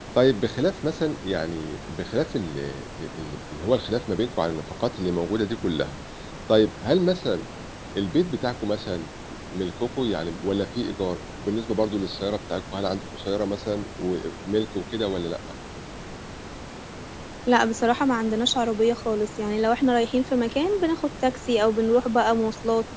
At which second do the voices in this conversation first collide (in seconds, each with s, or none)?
none